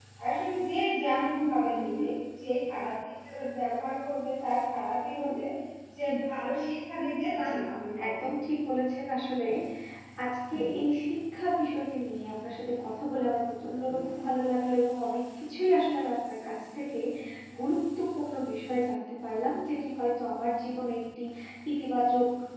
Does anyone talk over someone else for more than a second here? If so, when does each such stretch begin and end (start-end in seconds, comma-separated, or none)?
none